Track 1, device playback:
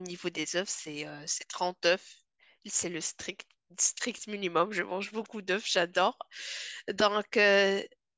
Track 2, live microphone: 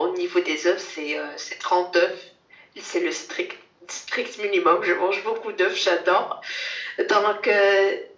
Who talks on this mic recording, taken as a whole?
echo only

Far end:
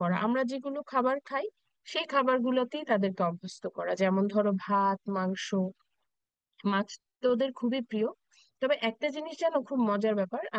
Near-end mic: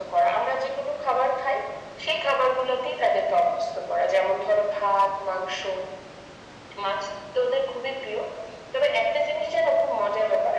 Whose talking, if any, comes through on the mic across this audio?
echo only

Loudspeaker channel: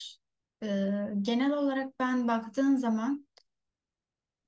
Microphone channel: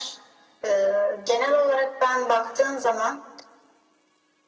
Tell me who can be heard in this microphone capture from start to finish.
echo only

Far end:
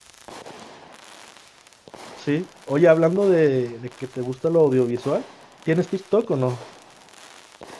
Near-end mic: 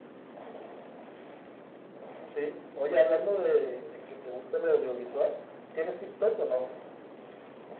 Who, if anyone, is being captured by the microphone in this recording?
echo only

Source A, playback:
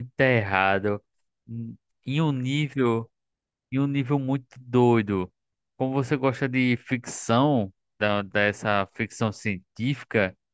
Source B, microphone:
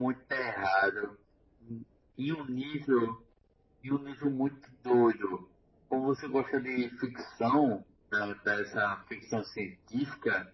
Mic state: echo only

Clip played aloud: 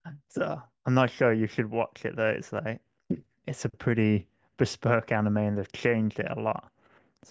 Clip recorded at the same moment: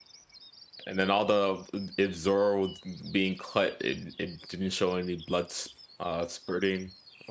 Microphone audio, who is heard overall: user only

